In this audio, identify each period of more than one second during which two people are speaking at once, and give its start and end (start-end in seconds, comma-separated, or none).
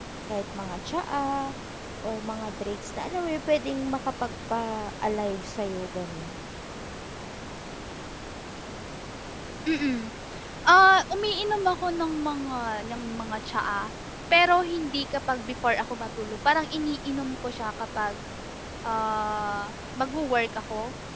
none